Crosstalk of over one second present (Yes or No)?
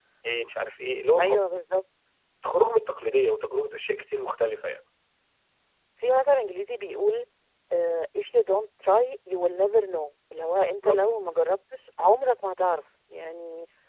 No